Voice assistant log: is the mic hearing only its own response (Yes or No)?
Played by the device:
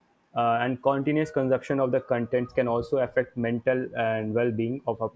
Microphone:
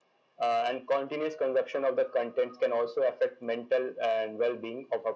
Yes